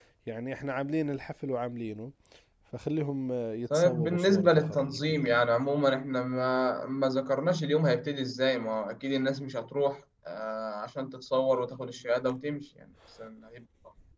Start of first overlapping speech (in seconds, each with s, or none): 3.7 s